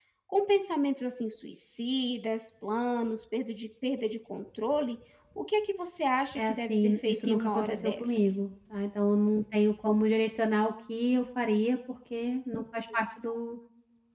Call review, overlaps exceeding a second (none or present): present